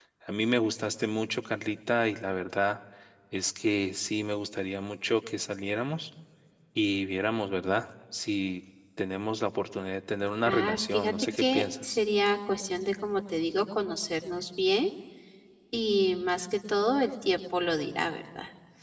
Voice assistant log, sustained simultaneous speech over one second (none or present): present